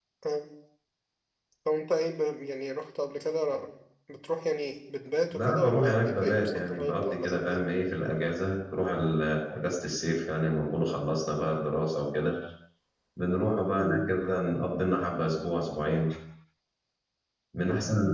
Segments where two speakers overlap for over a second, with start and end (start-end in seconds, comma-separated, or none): 5.3-7.7